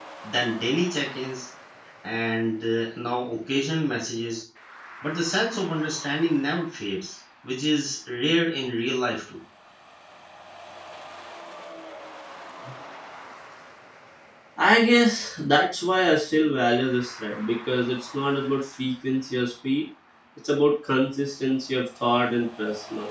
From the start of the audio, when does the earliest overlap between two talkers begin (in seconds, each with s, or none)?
none